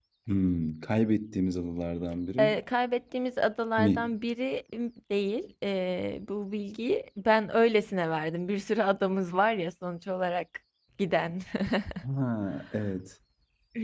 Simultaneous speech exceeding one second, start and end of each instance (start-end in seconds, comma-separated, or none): none